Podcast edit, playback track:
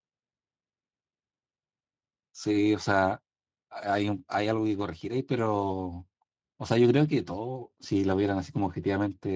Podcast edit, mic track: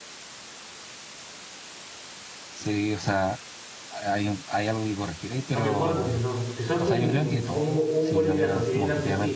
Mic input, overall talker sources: both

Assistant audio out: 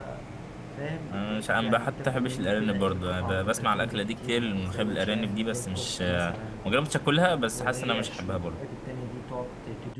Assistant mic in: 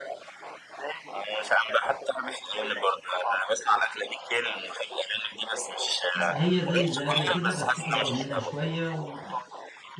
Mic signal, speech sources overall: both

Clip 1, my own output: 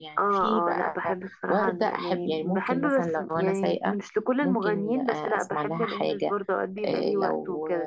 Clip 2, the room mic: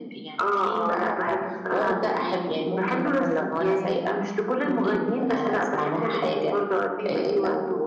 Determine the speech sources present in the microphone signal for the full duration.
echo only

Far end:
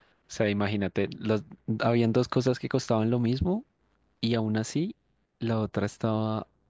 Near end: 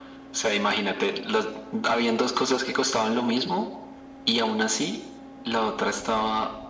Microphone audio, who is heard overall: echo only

